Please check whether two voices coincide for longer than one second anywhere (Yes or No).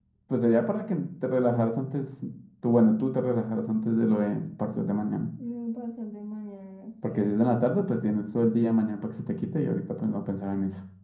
No